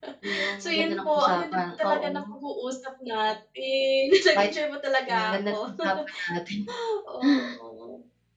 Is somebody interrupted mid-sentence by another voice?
Yes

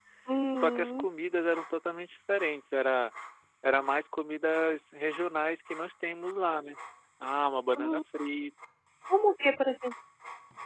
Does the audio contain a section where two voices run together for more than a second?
No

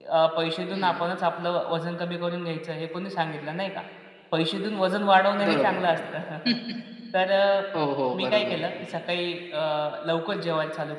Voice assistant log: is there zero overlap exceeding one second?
Yes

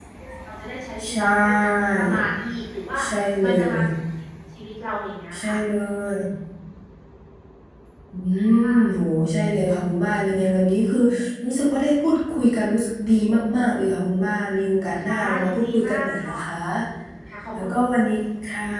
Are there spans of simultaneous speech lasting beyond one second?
Yes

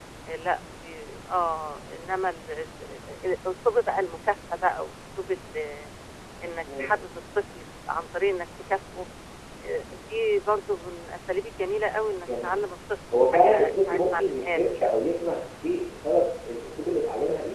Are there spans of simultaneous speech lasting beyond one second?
Yes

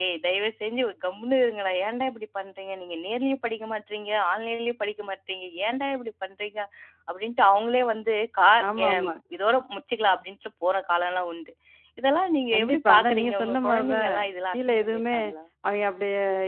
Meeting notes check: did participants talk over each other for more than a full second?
Yes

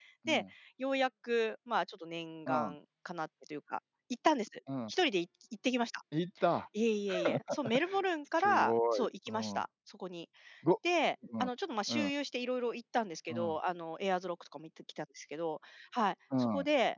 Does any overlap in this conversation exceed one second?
Yes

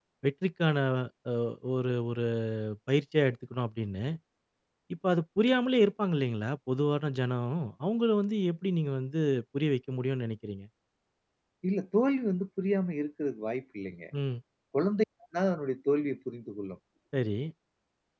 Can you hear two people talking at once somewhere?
No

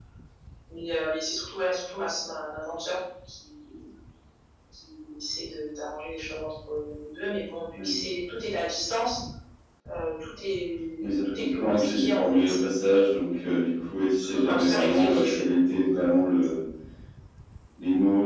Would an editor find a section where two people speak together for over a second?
Yes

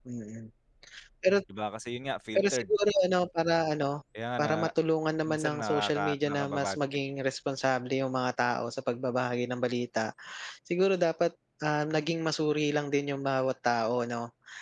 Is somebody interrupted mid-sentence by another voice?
Yes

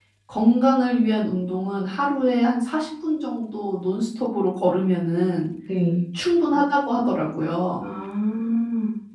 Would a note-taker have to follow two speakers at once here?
No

